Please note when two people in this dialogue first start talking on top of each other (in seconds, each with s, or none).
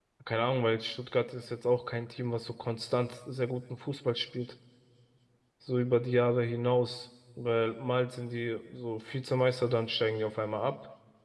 none